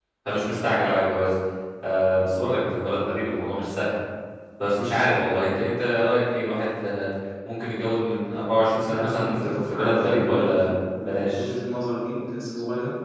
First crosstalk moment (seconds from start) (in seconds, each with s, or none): 8.9 s